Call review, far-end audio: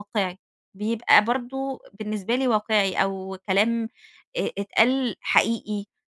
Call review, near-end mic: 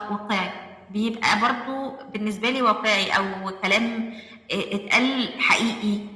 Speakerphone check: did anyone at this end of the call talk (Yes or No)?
No